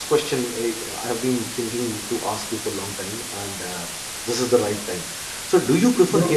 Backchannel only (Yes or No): Yes